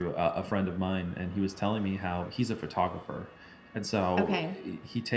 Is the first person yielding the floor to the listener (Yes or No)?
No